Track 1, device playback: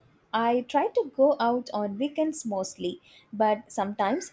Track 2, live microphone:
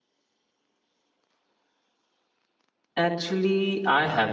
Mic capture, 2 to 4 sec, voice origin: user only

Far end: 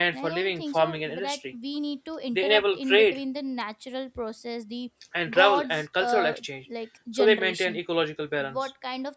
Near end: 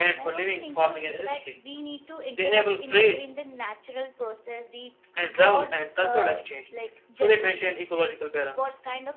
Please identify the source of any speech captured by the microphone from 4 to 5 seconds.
echo only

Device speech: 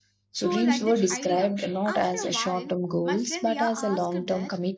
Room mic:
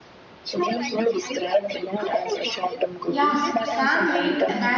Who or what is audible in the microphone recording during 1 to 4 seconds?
both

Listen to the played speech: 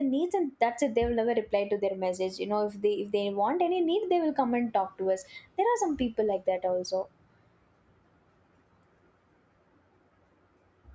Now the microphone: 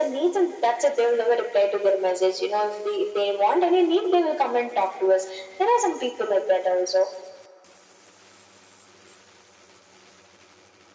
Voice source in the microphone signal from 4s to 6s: echo only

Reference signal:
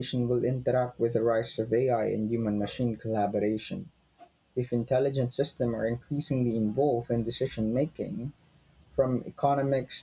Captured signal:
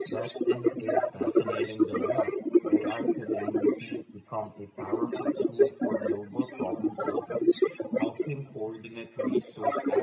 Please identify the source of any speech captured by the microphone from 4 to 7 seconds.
both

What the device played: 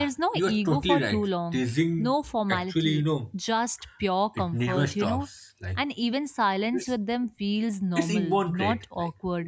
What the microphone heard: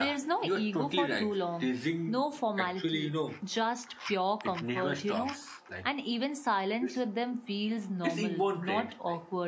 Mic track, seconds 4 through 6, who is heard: echo only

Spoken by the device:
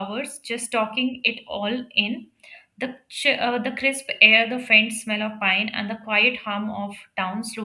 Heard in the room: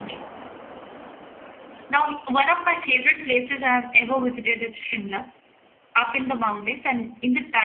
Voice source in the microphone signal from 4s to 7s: user only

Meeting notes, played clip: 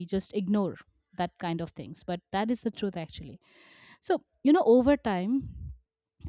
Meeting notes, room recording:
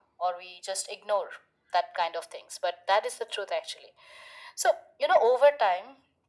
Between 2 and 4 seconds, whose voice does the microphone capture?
echo only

